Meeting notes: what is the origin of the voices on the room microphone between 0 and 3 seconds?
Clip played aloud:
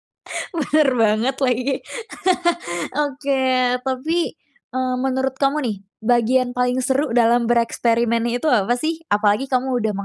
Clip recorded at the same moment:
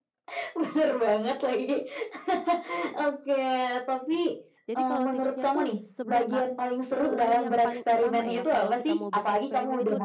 echo only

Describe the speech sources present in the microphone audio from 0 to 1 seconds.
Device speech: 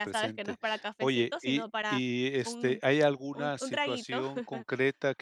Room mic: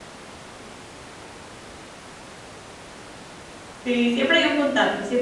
neither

